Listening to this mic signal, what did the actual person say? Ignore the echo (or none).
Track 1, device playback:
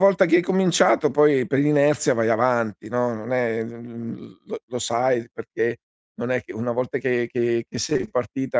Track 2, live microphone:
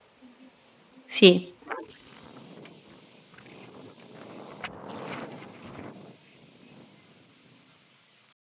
Sì.